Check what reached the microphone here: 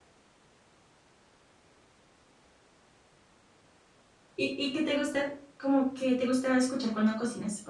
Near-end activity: present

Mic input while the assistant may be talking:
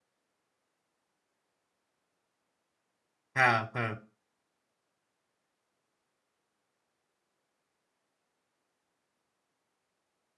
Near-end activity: present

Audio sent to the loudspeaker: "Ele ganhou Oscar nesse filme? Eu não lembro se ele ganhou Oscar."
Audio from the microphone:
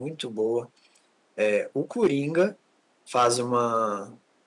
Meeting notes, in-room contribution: present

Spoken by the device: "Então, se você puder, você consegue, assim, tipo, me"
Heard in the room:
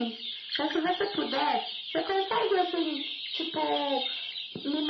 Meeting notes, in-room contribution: none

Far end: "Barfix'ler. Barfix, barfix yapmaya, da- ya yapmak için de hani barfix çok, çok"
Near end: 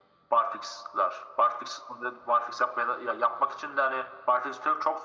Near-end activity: none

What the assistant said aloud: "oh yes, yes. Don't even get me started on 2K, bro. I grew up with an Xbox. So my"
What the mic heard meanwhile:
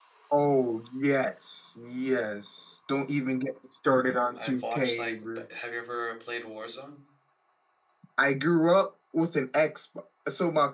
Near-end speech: present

